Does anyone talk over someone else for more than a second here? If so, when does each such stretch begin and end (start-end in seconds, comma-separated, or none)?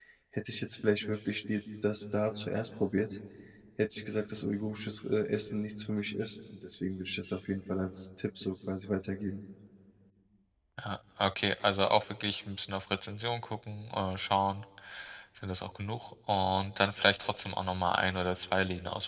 none